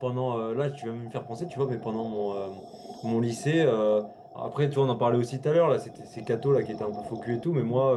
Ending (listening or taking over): listening